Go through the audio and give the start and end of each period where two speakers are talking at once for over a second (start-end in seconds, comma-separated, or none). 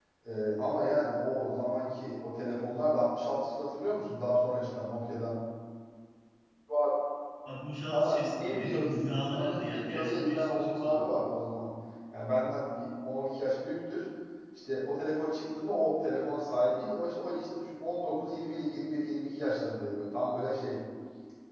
7.9-11.3